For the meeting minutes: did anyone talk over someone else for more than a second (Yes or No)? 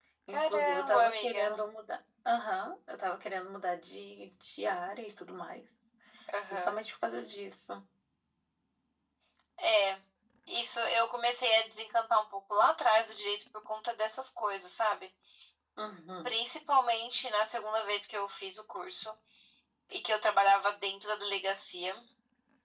Yes